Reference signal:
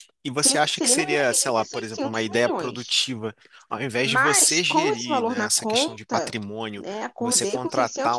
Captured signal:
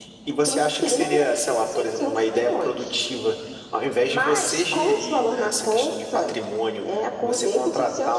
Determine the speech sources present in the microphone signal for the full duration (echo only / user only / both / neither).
echo only